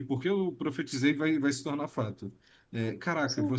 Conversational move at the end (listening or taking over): listening